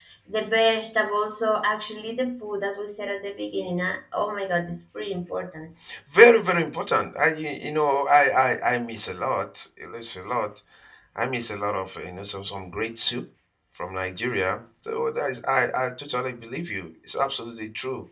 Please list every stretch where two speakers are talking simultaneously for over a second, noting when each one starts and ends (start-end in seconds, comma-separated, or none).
none